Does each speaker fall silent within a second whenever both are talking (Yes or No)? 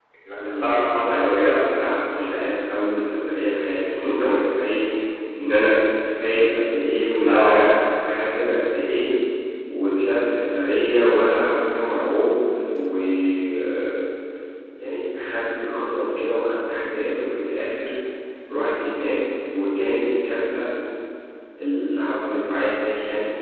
No